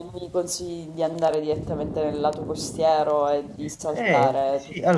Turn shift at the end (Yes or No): Yes